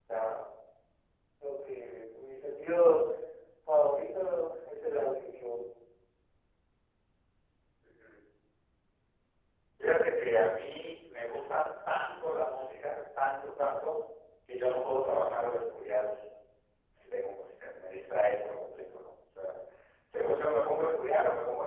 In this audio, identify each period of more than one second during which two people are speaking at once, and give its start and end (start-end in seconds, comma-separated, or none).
none